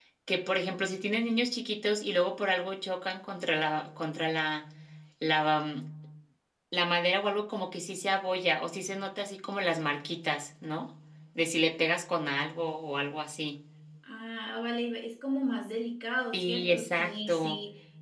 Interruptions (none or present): present